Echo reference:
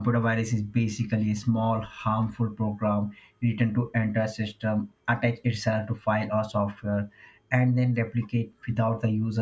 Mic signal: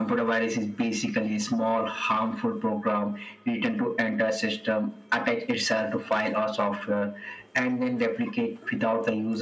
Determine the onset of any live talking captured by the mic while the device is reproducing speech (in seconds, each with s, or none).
none